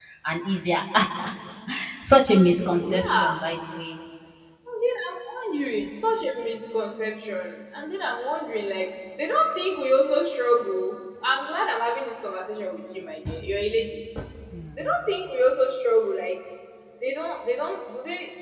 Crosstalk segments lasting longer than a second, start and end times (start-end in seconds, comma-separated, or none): none